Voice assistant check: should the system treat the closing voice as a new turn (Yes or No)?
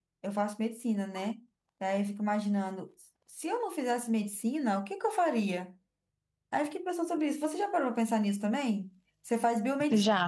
No